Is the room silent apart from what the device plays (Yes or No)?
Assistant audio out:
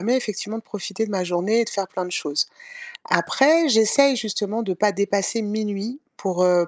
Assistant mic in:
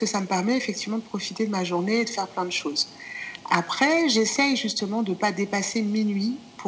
Yes